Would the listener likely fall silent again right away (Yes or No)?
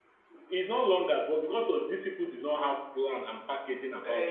Yes